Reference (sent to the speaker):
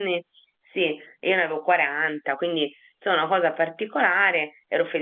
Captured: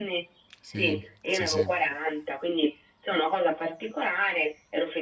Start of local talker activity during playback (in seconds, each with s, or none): 0.6 s